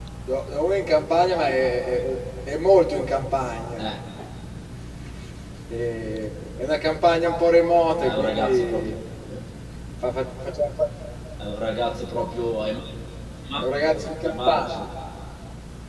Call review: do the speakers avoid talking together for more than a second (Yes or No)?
No